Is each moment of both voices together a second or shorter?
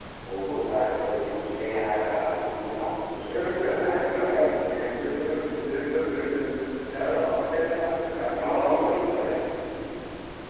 No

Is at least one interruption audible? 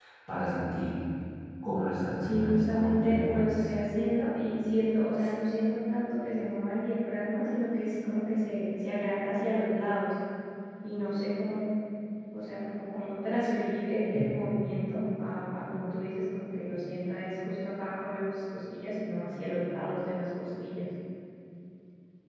Yes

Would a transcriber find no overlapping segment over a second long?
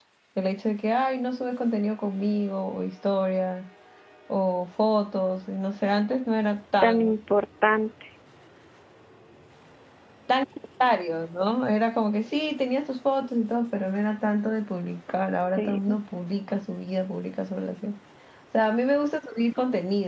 Yes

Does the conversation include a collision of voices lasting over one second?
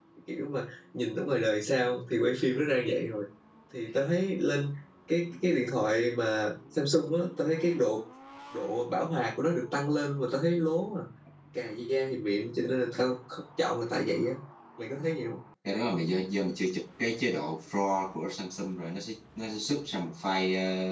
No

